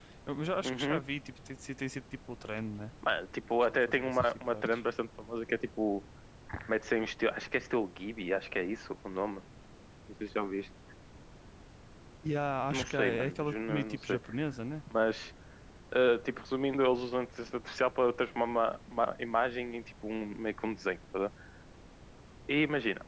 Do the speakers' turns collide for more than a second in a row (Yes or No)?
Yes